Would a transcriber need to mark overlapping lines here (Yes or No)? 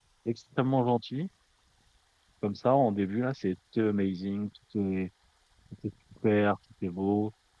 No